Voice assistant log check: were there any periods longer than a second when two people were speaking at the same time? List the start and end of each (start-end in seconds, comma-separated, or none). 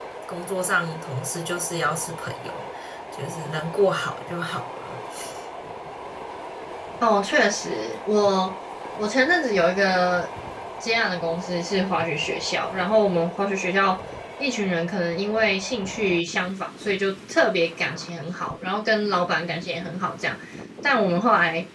none